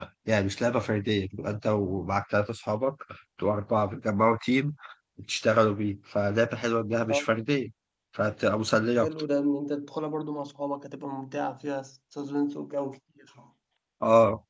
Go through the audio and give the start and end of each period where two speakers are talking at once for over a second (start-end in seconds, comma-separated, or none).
none